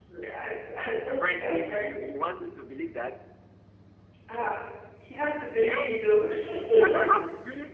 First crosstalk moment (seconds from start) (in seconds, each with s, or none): 0.8 s